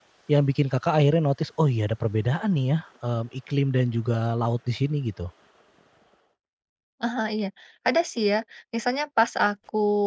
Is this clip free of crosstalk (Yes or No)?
Yes